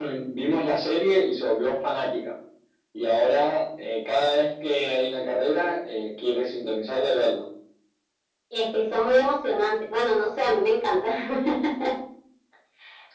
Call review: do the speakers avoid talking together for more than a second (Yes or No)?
Yes